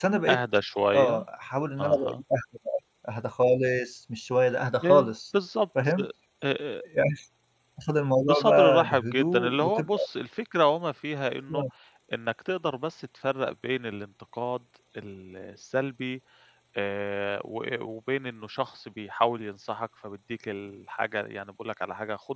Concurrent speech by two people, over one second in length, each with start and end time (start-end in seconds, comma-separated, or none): 8.2-10.1